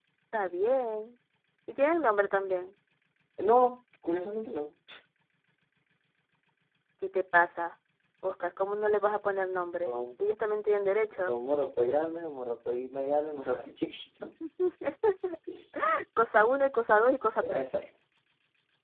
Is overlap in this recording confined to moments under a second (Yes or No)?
Yes